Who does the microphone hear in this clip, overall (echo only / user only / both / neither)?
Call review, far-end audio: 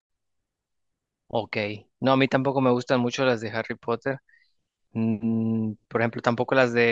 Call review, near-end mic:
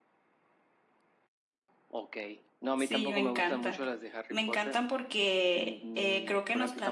both